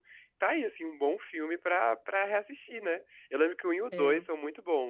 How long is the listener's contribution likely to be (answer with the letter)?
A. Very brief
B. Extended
A